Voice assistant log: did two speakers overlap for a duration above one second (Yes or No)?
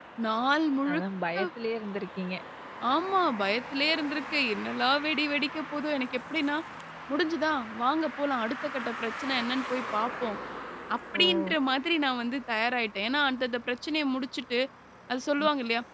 No